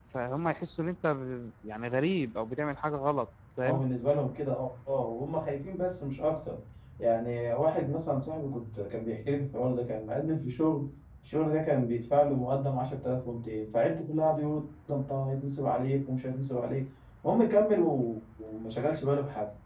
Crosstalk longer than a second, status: none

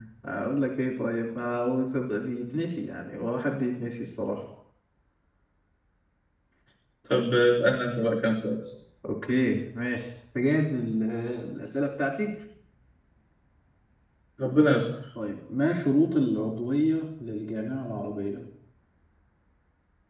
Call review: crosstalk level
none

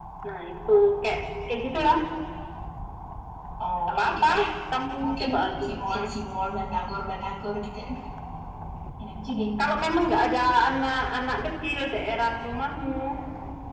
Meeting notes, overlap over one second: none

